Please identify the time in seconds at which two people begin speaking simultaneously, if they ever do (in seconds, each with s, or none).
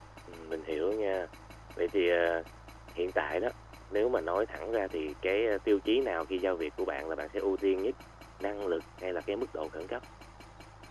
none